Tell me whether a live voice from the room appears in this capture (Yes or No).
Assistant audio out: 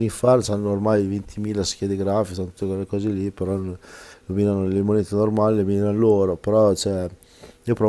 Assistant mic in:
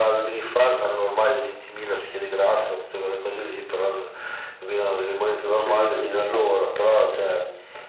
Yes